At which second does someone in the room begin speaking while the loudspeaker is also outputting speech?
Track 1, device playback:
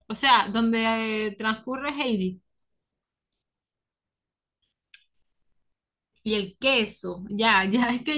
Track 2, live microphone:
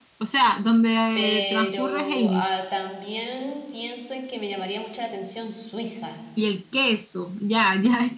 1.1 s

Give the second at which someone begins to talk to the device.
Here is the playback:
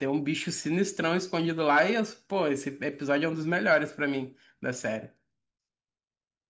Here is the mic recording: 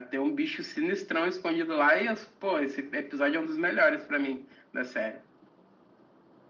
none

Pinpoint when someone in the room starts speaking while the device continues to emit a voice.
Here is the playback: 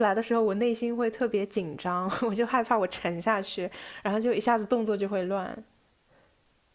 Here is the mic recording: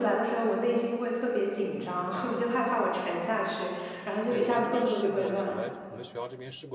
4.2 s

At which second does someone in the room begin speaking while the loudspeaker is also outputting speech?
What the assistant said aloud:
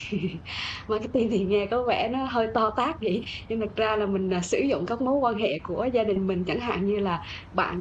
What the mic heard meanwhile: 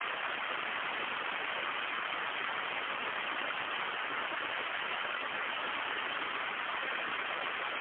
none

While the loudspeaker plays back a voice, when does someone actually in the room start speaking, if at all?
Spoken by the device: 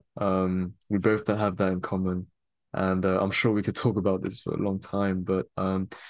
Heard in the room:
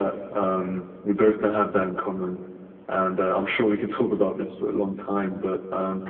none

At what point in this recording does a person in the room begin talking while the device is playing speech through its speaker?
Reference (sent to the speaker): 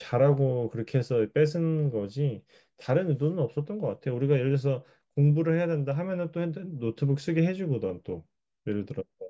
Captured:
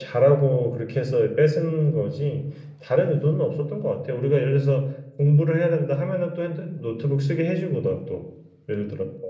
none

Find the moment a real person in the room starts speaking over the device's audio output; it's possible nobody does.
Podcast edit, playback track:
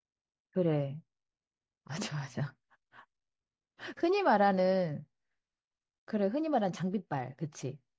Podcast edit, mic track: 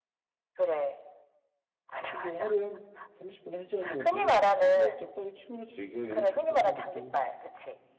2.0 s

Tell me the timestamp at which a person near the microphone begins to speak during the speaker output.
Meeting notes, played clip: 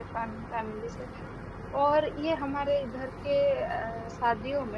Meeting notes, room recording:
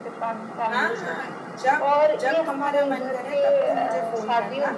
0.7 s

